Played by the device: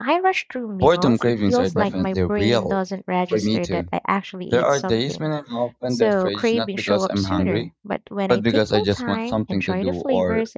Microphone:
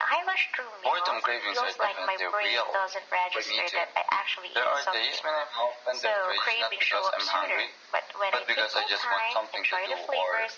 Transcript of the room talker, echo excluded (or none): none